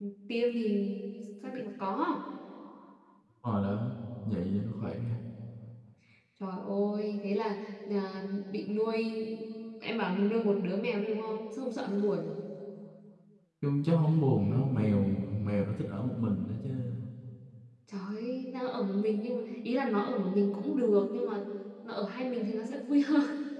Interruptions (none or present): none